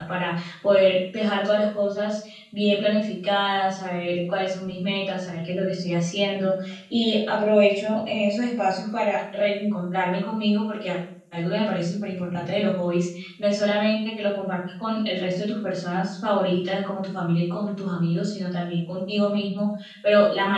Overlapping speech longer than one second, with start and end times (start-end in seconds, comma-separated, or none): none